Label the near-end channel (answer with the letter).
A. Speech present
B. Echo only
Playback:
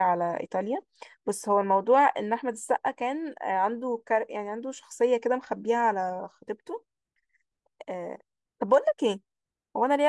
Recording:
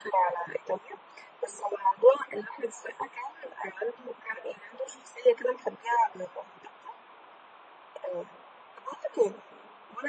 B